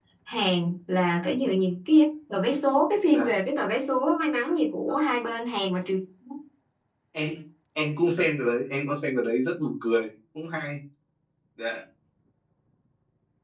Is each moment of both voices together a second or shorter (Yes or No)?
Yes